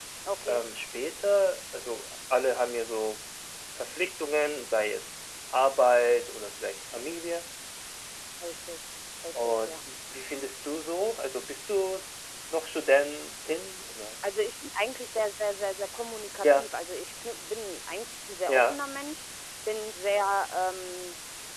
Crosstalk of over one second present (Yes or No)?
No